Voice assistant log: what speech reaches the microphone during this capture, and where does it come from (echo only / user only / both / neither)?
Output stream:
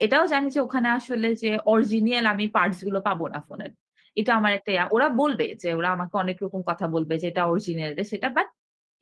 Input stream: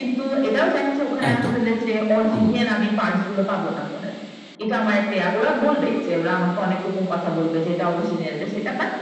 both